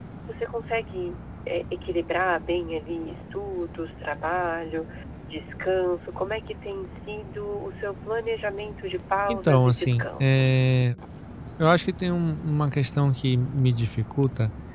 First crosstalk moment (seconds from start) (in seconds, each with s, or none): 9.3 s